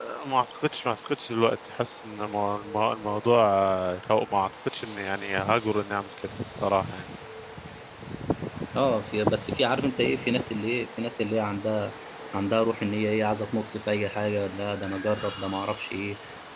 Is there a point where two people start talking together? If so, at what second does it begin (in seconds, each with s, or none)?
none